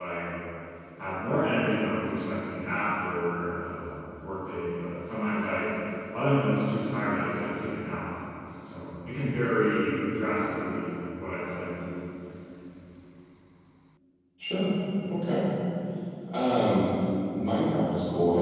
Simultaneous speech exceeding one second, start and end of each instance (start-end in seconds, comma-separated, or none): none